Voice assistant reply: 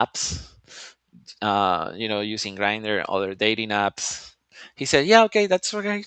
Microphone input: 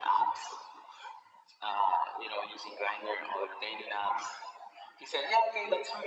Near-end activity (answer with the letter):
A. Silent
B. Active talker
A